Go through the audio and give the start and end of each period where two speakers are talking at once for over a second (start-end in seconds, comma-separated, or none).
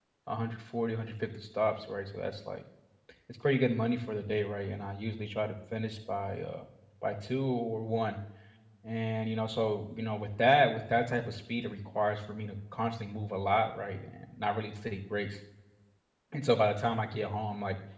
none